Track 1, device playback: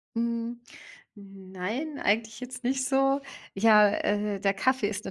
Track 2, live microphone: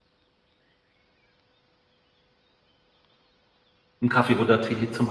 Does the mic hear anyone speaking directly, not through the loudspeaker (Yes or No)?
Yes